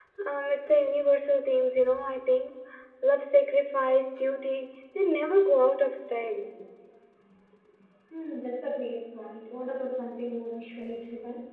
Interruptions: none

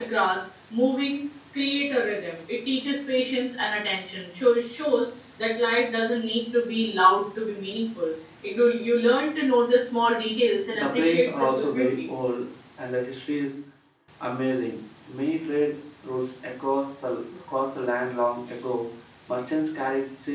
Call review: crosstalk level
present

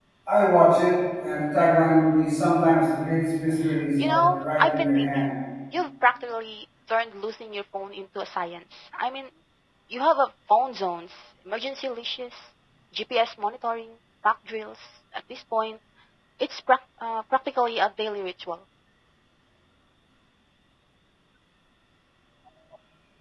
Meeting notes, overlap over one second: present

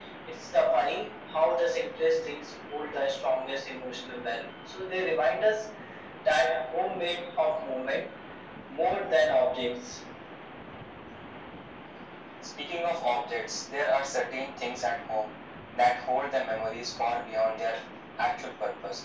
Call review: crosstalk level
none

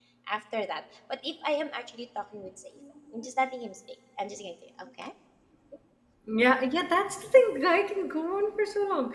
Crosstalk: none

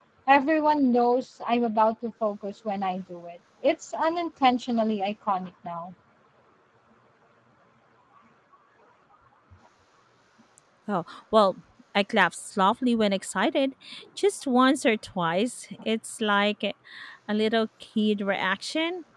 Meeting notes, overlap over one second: none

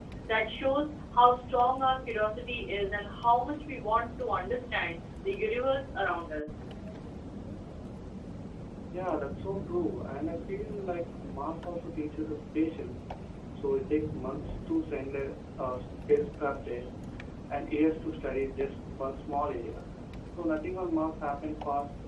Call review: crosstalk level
none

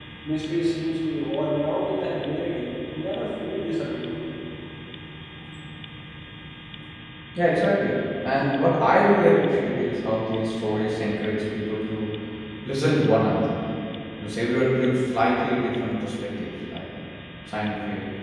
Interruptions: none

